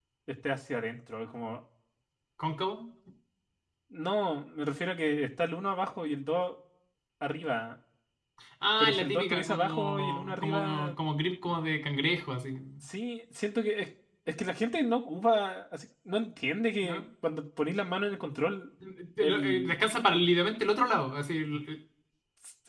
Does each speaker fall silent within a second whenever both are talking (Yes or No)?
No